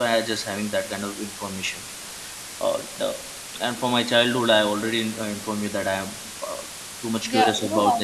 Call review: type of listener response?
taking over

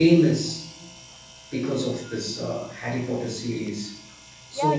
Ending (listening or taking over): taking over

